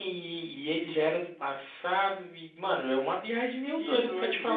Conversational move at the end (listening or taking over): listening